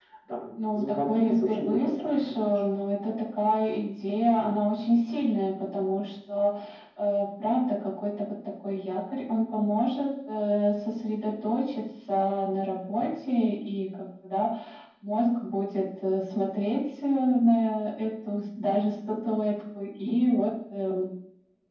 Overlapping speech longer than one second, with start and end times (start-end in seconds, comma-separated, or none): 0.7-2.4